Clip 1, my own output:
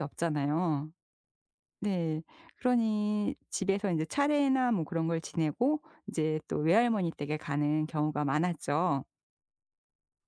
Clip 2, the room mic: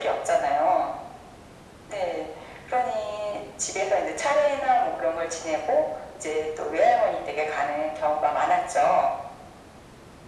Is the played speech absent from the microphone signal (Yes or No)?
No